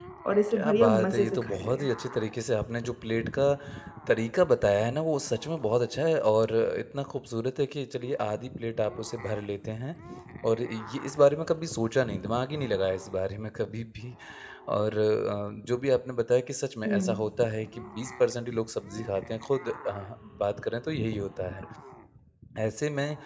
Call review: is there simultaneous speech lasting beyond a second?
Yes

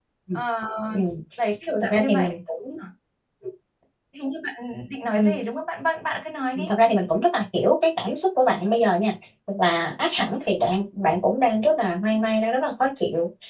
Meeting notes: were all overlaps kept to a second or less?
Yes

